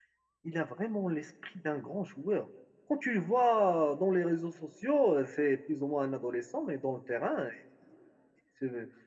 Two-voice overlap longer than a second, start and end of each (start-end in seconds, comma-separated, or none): none